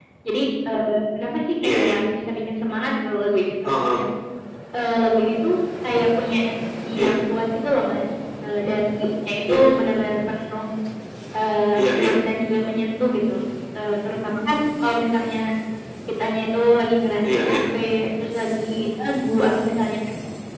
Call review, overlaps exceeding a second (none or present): none